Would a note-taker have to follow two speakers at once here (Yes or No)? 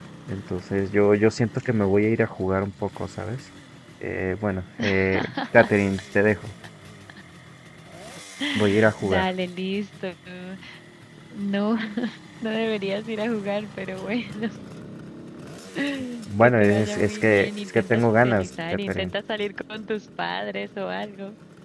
Yes